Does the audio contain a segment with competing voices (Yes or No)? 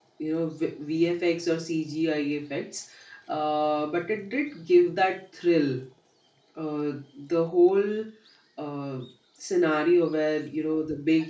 No